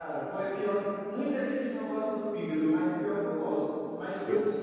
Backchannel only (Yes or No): Yes